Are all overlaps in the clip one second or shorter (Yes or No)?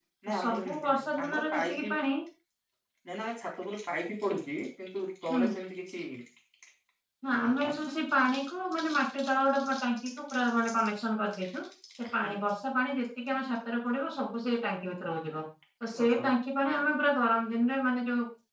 No